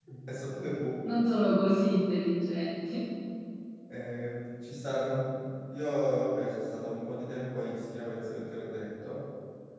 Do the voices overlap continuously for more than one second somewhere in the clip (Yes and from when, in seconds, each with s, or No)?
No